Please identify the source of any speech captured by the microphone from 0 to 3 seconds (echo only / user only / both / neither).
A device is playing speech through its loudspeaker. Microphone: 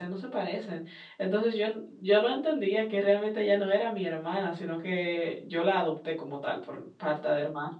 user only